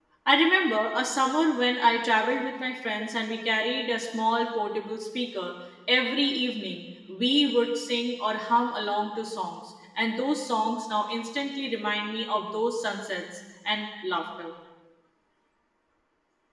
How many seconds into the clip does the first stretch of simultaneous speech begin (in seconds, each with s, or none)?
none